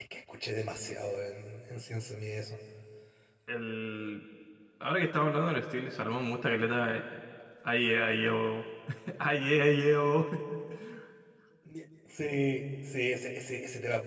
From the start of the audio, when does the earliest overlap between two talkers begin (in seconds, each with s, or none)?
none